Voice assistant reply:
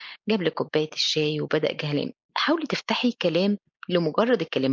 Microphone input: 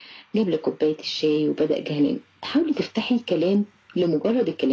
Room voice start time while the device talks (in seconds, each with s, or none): none